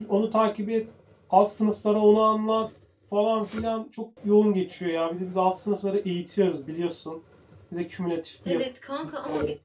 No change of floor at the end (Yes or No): No